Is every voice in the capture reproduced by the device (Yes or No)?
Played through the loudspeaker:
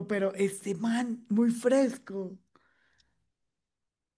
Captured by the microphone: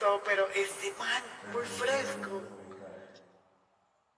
No